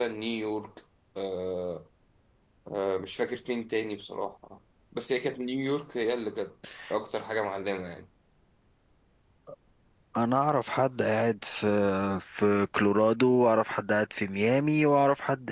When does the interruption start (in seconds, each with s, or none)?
none